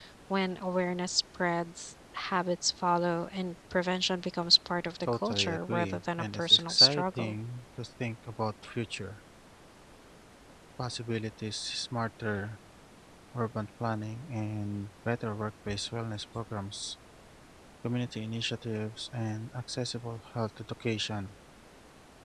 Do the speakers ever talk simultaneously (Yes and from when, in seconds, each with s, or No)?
Yes, from 5.0 s